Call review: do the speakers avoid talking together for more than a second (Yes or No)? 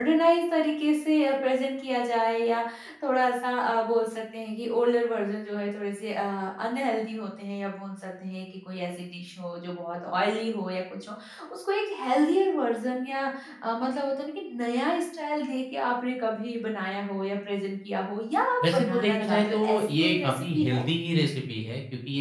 No